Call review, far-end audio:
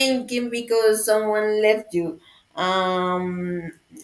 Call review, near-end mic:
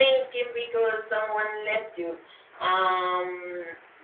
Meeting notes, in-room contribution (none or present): none